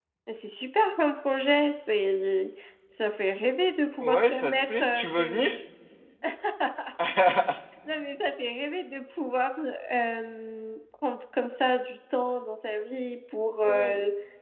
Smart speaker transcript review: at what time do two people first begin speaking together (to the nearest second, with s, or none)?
4 s